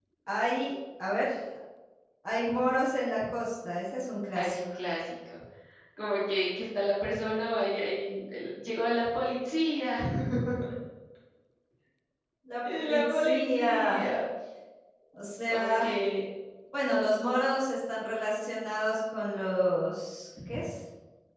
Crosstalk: present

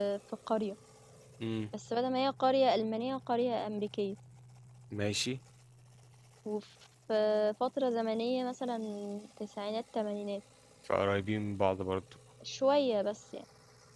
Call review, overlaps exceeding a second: none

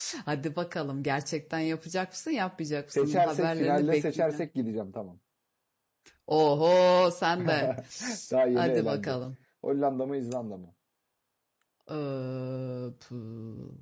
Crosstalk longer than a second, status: present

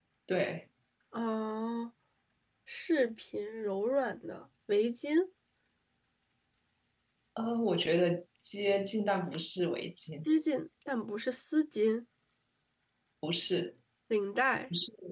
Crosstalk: none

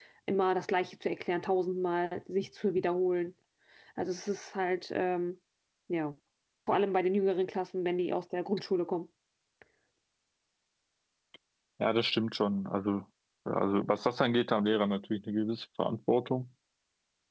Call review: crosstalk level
none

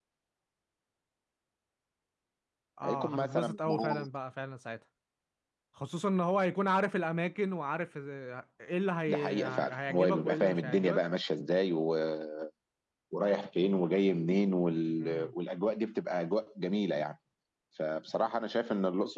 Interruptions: present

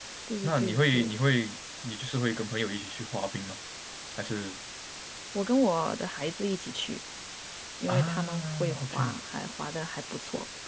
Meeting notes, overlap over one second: present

